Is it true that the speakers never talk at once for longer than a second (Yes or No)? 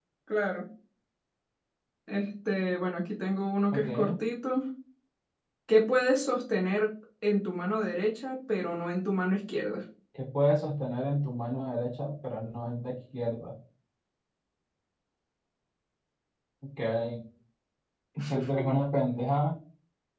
Yes